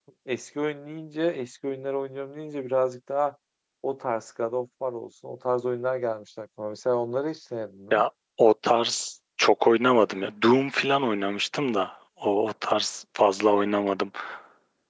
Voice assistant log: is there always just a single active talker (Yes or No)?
Yes